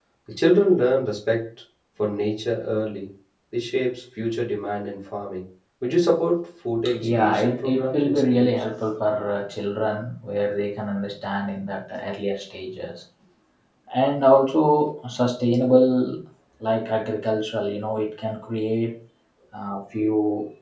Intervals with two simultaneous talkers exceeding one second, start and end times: 7.1-8.6

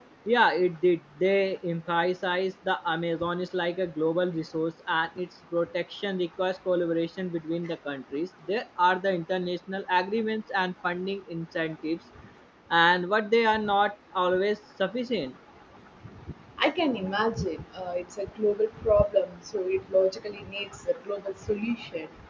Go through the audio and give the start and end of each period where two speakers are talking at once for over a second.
none

